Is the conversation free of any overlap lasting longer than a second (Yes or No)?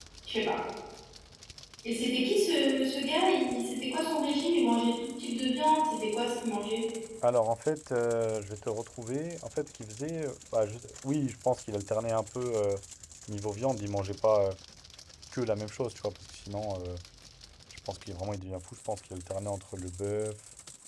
Yes